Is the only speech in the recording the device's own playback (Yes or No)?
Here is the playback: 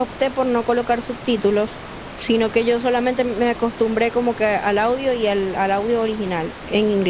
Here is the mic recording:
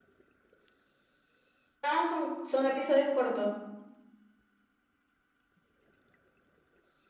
No